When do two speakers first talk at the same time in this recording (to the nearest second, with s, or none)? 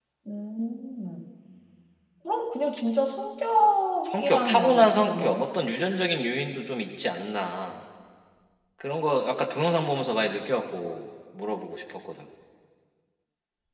4 s